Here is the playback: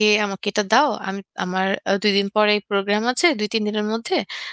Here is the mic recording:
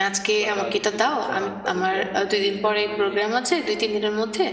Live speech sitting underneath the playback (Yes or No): Yes